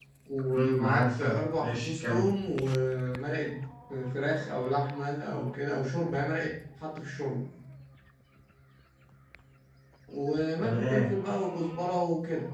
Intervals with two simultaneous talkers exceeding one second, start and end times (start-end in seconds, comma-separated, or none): 0.5-2.2